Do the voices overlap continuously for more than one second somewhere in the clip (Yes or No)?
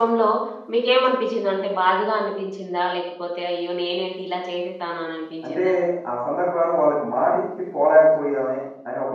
No